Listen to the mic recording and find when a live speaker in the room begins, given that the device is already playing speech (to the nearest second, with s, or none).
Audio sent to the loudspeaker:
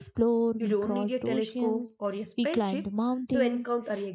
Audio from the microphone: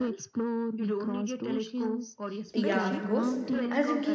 3 s